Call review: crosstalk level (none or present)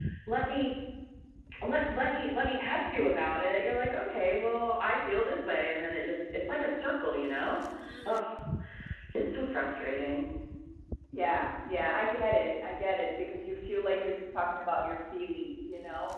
none